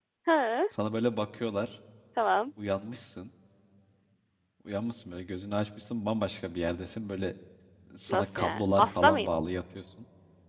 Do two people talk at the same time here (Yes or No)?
Yes